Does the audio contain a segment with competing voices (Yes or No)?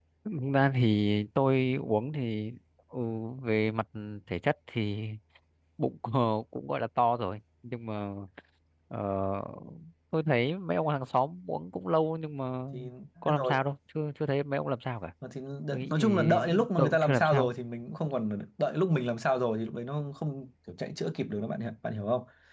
Yes